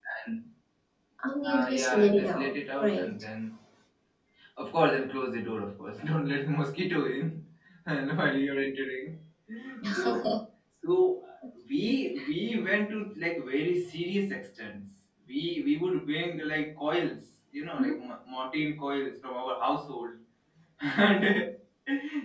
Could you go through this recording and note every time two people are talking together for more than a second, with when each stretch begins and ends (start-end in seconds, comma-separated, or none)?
1.5-3.1